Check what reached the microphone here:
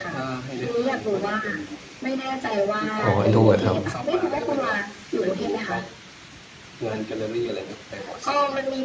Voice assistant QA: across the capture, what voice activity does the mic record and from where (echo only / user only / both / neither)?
both